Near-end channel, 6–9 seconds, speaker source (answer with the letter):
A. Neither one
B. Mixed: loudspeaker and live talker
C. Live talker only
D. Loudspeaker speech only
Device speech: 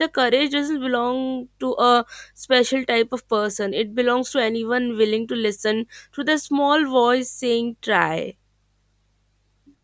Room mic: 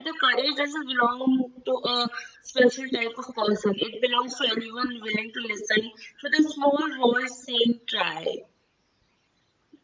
D